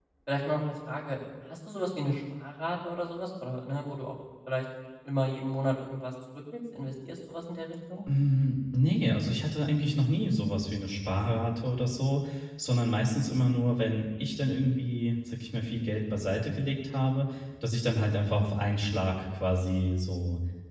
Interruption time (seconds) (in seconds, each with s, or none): none